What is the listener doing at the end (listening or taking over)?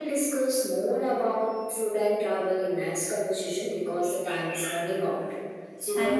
taking over